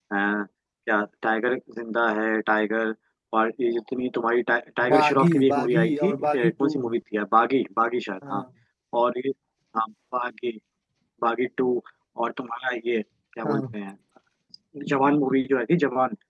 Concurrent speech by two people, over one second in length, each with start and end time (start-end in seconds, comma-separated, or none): 4.9-6.7